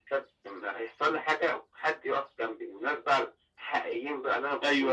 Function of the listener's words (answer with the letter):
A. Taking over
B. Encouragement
A